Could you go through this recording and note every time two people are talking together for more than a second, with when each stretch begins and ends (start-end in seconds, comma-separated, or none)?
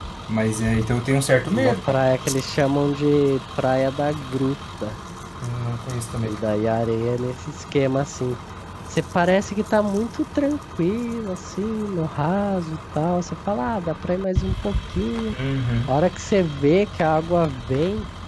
none